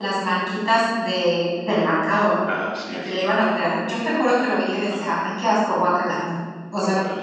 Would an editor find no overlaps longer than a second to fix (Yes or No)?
Yes